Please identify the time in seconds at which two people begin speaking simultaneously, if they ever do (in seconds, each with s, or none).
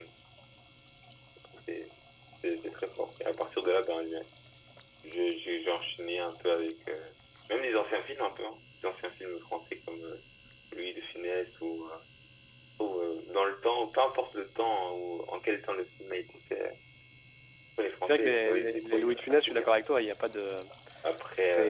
18.0 s